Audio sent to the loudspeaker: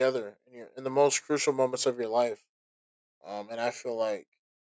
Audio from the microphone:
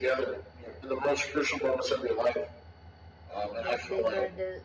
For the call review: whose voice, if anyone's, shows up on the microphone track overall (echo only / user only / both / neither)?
both